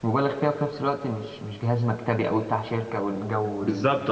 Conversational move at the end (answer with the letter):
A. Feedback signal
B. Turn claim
B